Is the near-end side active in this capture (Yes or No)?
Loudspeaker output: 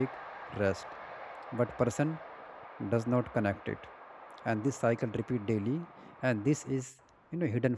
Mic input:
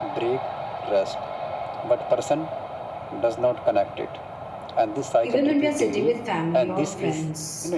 Yes